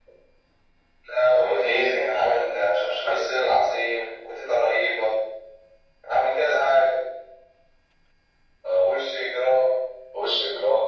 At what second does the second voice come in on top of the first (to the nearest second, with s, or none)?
1 s